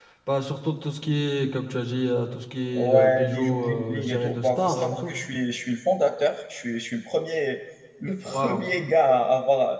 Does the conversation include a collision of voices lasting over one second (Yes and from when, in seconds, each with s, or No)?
Yes, from 2.7 s